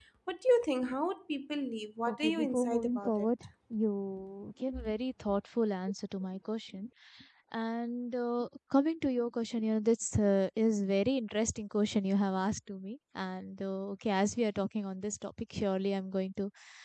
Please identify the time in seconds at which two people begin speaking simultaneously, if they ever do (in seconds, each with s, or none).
2.1 s